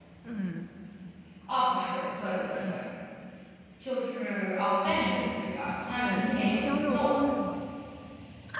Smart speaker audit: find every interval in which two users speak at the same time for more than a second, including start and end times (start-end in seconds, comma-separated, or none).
6.0-7.5